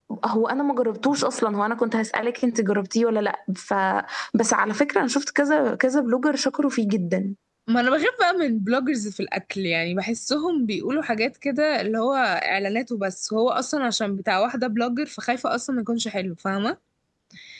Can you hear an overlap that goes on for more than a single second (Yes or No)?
No